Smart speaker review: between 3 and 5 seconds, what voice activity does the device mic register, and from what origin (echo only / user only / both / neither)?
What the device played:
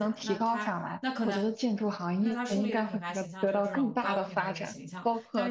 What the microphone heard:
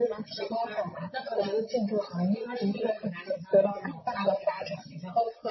echo only